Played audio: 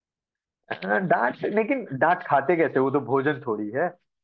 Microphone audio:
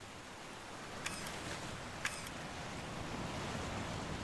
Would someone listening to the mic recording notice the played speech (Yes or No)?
No